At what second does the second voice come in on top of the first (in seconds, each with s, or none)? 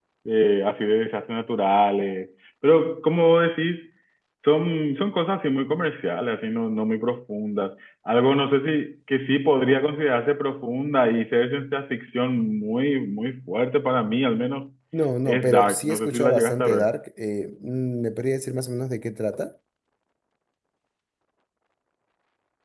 15.2 s